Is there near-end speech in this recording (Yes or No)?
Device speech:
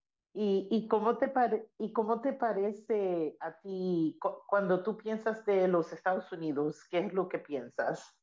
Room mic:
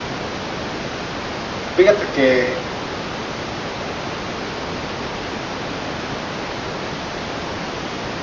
Yes